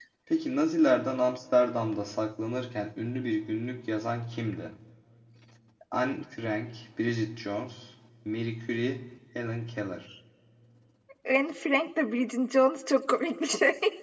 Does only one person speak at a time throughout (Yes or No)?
Yes